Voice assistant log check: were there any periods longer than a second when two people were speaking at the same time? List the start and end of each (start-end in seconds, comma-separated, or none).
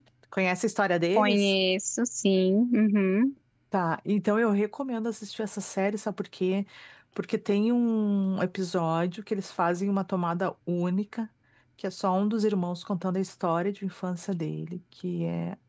none